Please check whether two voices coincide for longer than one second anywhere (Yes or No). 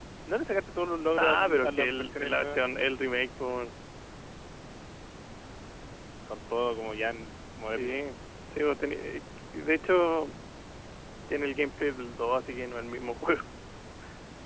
Yes